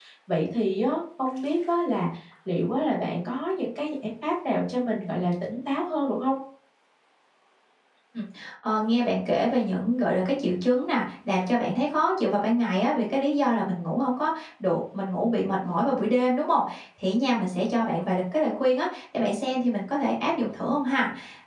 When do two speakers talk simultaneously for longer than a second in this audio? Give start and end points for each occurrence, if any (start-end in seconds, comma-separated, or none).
none